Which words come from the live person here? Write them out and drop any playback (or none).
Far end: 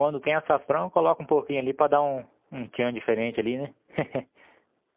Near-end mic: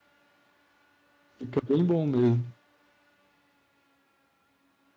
Fica bem bom mesmo.